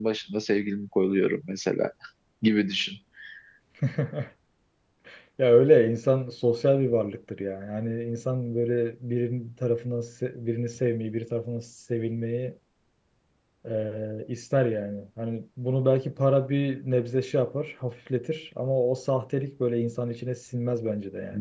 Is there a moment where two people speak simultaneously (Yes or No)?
No